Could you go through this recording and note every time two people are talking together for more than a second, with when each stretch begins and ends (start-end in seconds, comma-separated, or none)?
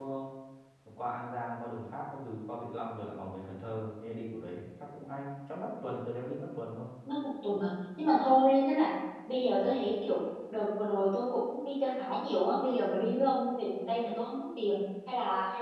none